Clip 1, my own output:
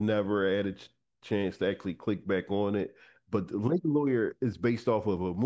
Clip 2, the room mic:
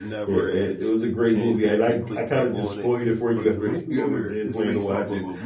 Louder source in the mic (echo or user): user